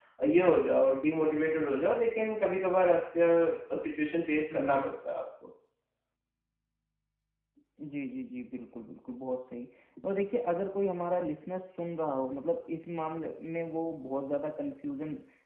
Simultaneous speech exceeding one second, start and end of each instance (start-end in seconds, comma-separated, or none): none